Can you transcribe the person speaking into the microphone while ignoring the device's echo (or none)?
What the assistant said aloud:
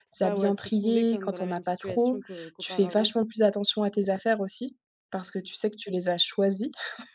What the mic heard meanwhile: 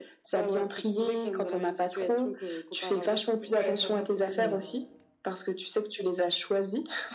ouais, cinquante mille heu,